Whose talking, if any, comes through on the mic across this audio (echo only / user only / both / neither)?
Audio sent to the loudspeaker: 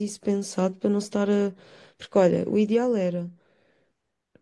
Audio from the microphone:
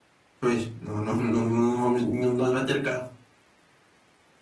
user only